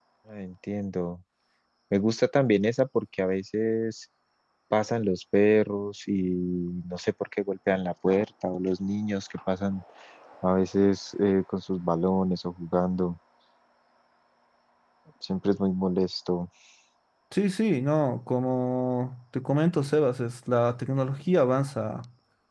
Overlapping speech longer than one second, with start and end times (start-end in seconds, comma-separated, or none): none